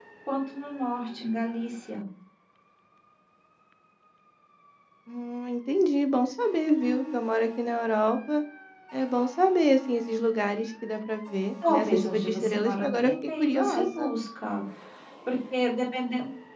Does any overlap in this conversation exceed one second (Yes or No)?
Yes